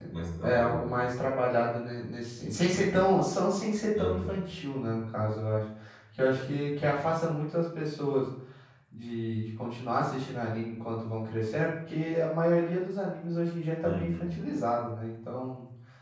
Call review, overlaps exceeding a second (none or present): none